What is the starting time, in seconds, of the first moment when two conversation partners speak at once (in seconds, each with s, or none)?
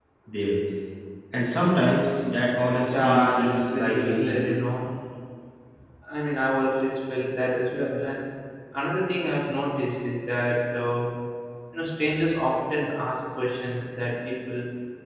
2.9 s